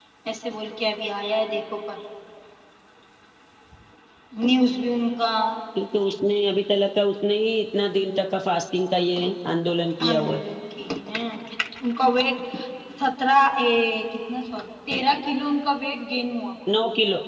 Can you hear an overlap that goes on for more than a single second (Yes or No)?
No